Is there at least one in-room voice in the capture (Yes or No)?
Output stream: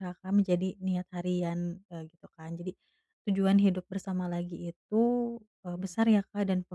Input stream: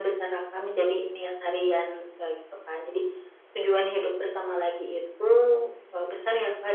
No